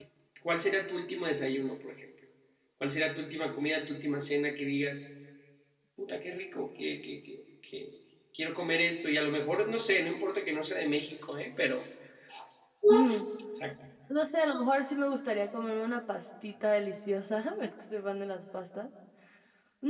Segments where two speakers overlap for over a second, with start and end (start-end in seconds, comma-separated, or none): none